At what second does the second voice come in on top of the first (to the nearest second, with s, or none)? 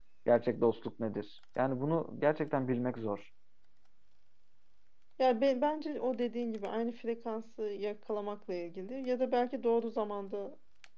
none